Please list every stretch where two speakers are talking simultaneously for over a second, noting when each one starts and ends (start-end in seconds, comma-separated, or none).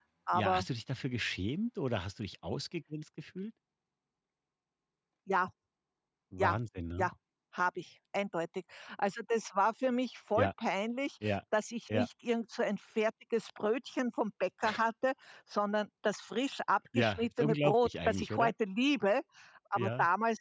16.9-18.5